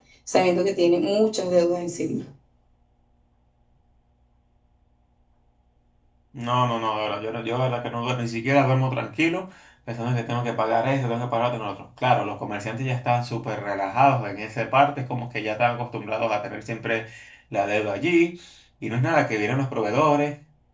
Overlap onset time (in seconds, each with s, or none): none